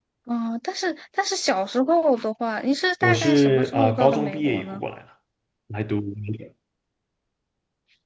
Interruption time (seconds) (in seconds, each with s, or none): 3.0 s